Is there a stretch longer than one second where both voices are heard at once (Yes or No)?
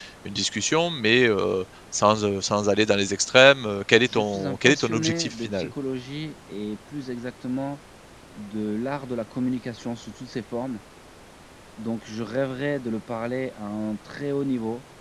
Yes